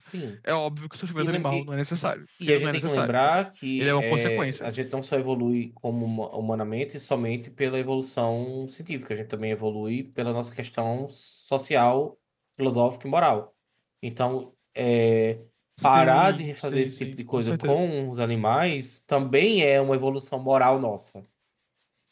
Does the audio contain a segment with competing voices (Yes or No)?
Yes